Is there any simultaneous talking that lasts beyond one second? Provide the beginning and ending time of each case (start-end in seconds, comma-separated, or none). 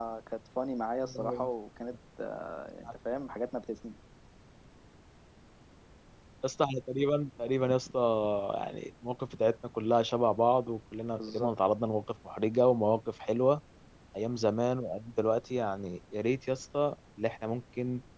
none